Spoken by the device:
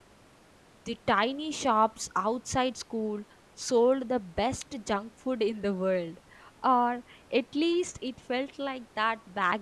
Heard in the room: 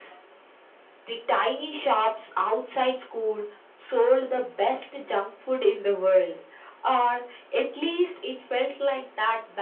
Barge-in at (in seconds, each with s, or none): none